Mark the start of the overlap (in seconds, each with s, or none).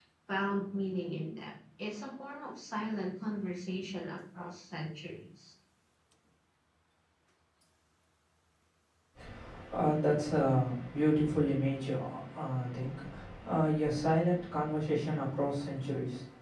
none